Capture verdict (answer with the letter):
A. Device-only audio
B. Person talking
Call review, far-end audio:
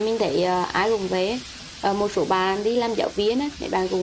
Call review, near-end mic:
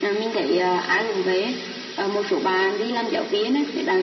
A